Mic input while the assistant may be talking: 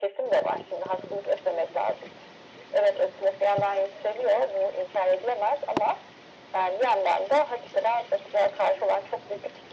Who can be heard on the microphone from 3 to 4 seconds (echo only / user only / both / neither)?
echo only